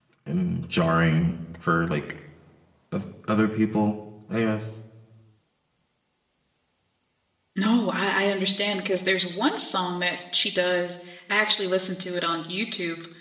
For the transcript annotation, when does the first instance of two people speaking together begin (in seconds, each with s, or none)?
none